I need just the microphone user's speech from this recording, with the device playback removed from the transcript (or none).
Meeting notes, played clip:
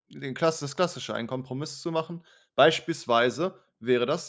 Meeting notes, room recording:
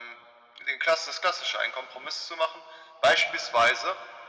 none